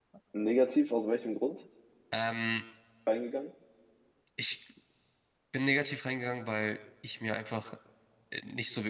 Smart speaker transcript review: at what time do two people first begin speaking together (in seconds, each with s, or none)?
none